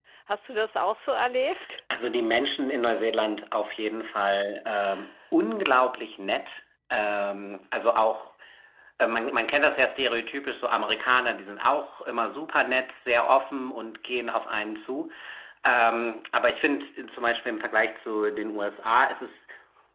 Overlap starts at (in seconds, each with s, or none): none